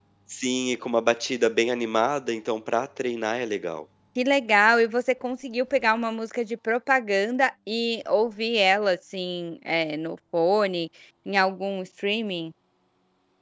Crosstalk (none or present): none